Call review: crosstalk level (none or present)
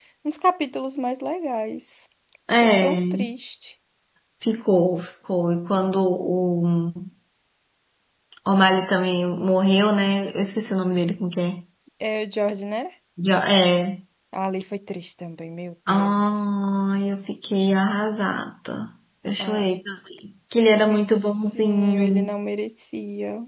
present